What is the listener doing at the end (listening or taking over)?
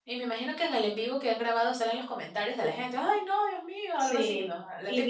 taking over